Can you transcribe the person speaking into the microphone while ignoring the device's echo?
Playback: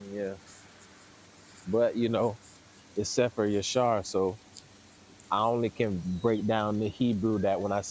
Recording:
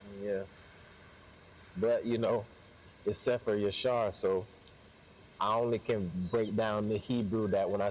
none

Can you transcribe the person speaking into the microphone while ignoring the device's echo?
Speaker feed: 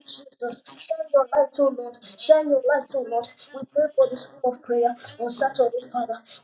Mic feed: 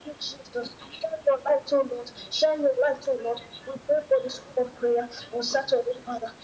none

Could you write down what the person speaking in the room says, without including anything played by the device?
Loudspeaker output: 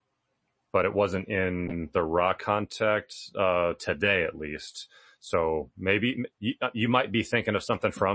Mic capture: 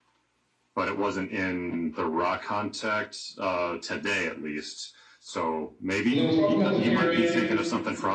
they were talking about the pyramid.

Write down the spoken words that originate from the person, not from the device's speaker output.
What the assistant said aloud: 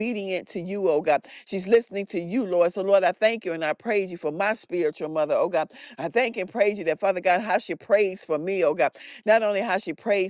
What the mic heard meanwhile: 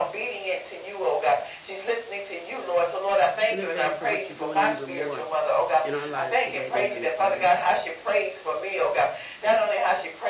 in advance of what you're doing and even more in our lives today dear honey father

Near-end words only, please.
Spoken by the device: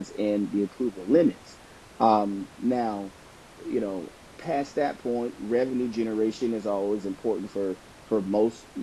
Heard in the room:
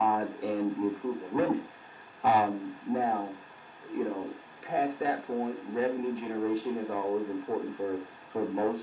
none

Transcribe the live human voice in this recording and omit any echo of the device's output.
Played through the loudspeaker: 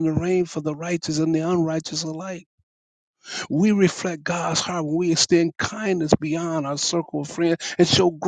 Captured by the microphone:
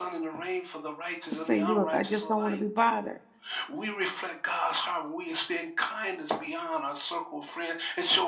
to say, look, I just don't want to be bothered.

